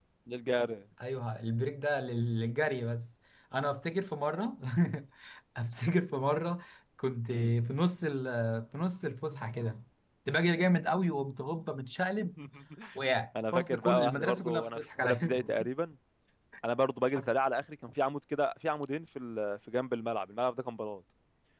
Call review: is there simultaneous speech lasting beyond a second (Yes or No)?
Yes